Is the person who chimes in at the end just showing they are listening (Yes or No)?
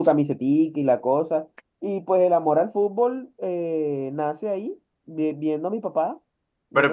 No